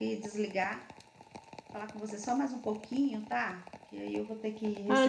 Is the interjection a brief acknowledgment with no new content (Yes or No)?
No